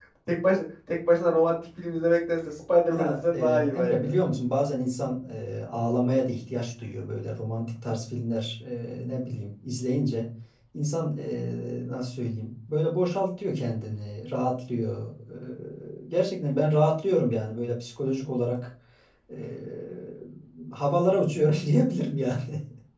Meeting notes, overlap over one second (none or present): present